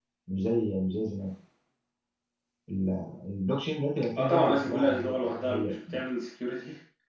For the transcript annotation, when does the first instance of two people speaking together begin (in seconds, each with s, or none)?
4.2 s